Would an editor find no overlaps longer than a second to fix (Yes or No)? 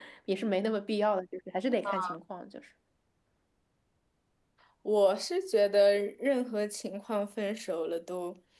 Yes